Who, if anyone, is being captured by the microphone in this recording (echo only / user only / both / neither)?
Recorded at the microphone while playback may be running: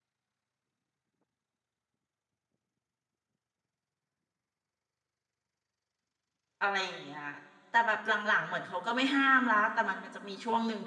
user only